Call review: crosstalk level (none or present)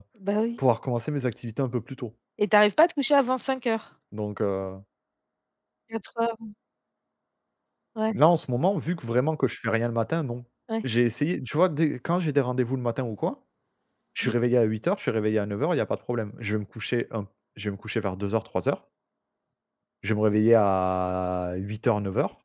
none